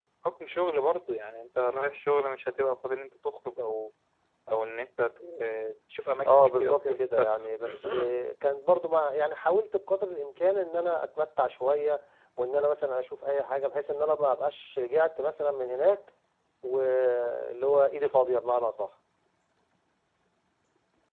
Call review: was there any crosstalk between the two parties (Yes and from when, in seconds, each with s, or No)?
Yes, from 6.2 s